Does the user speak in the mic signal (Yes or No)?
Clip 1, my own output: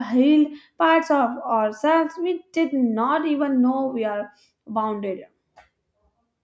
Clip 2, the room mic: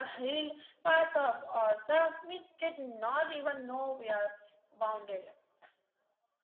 No